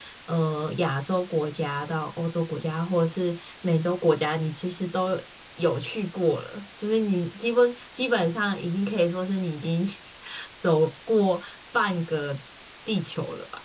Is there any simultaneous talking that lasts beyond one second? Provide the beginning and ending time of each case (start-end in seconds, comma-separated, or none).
none